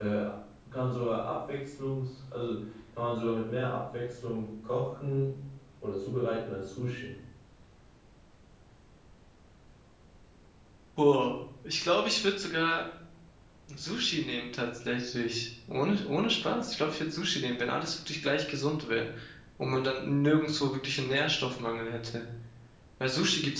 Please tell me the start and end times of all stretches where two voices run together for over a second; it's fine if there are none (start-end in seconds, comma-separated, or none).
none